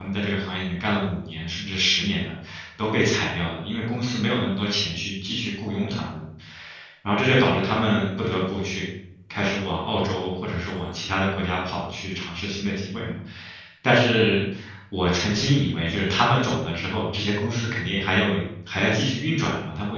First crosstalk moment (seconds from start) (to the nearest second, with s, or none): none